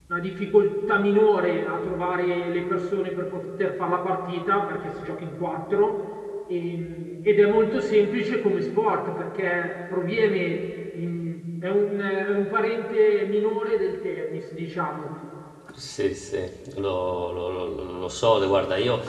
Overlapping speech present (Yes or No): No